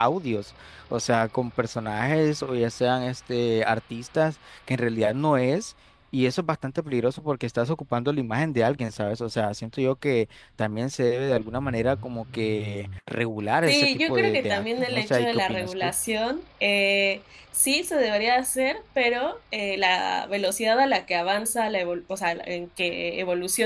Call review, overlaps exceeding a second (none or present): present